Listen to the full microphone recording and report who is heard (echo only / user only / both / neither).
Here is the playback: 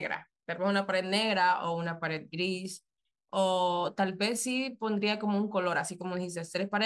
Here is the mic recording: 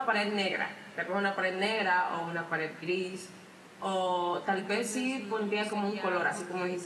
both